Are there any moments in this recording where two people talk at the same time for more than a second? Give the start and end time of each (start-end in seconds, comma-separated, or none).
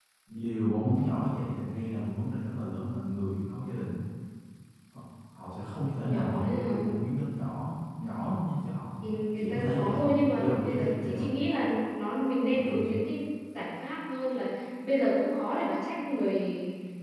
5.8-7.0, 9.4-11.3